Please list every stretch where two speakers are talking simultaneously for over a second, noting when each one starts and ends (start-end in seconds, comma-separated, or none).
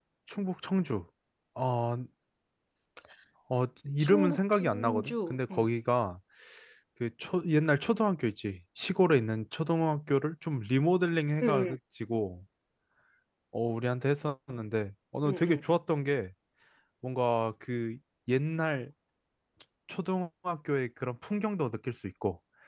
4.0-5.7